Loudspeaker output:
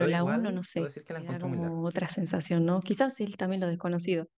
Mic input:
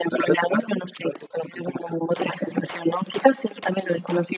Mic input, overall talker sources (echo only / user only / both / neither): echo only